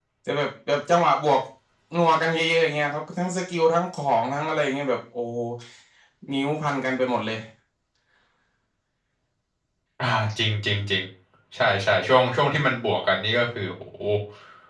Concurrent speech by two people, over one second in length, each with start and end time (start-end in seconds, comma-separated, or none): none